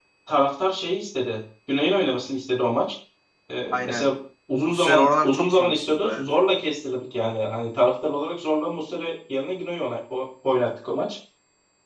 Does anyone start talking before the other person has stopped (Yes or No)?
Yes